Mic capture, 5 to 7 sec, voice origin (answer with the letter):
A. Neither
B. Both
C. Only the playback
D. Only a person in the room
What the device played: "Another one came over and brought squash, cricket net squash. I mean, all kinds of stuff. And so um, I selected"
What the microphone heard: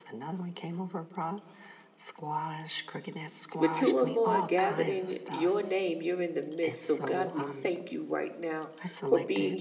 B